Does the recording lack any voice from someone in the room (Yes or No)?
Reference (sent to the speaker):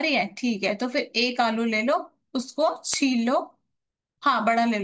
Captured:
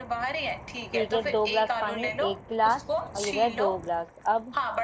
No